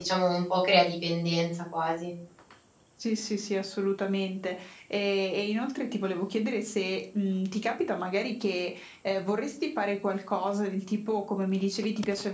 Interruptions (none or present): none